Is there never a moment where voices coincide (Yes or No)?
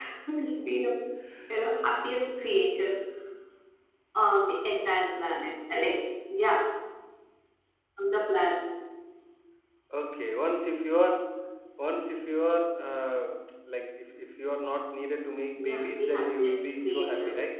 No